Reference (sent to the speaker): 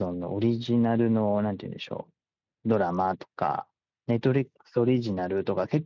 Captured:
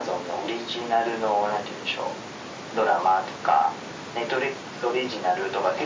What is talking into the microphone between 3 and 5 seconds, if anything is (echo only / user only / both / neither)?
echo only